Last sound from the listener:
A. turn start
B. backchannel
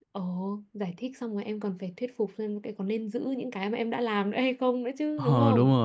A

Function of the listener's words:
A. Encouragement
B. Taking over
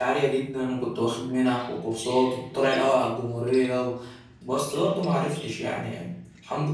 B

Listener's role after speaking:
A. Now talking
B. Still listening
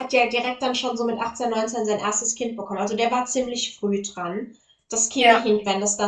B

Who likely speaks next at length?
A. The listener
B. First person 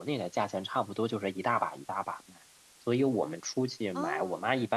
B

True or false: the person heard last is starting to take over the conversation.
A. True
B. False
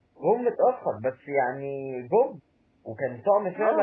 A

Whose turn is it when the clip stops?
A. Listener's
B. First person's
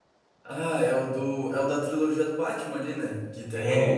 B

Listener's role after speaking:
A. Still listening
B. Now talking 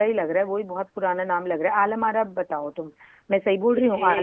B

